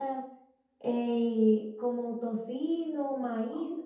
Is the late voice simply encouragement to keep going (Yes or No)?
No